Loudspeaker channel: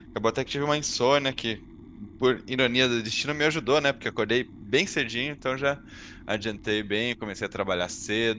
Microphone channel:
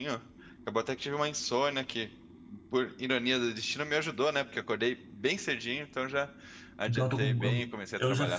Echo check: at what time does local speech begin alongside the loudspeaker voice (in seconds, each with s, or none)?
6.9 s